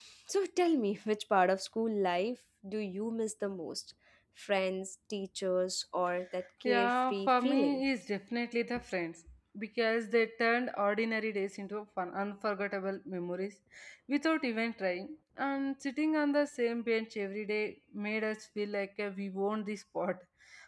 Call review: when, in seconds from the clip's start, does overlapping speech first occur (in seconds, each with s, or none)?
6.6 s